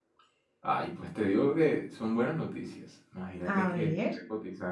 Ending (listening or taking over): listening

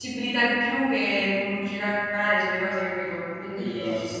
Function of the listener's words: taking over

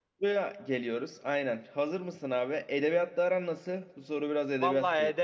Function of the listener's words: taking over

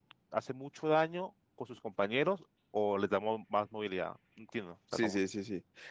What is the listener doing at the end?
taking over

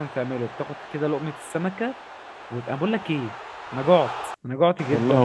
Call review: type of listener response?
listening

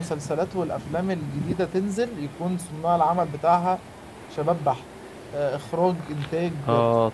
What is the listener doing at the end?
taking over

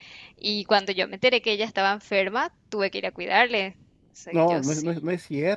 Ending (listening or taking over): taking over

